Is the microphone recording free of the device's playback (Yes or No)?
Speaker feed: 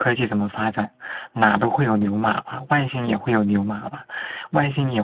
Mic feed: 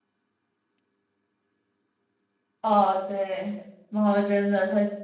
Yes